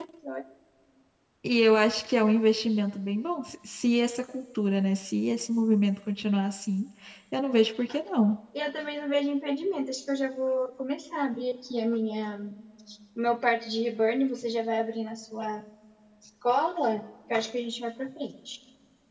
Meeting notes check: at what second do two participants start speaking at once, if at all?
none

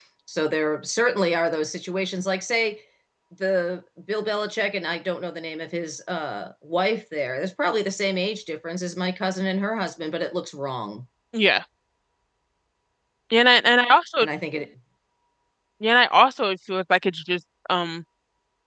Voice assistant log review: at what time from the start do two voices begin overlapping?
none

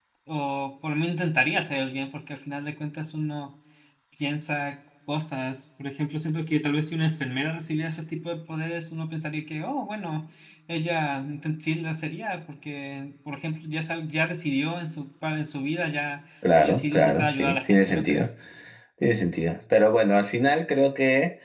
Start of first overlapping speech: 16.4 s

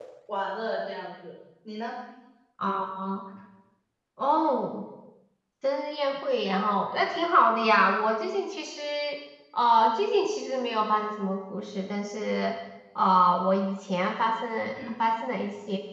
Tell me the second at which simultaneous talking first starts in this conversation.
none

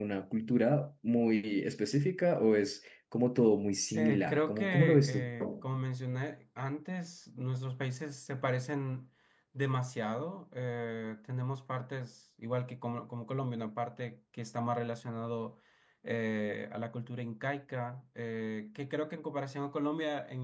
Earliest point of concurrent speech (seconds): 3.9 s

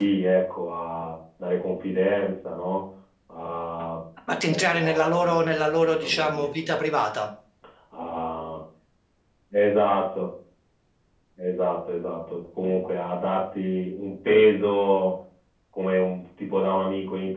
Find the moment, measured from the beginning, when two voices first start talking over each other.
4.5 s

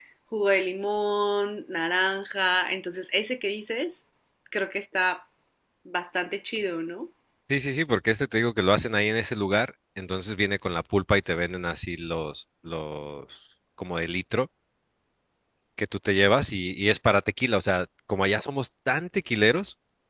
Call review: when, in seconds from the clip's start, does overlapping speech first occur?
none

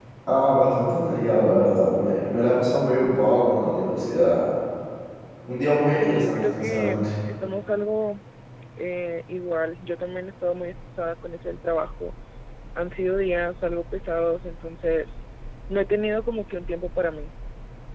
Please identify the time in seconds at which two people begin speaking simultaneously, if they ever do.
5.8 s

